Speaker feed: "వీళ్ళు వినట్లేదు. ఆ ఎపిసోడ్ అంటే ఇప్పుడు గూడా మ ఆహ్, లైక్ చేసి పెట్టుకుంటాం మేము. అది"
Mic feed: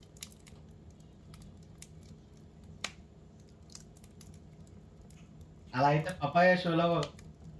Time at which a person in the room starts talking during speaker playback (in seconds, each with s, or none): 5.8 s